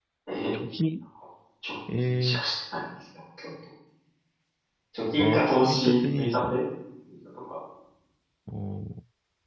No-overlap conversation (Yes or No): No